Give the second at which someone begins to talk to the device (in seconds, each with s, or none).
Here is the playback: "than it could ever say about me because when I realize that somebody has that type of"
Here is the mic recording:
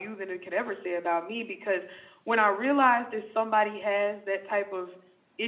none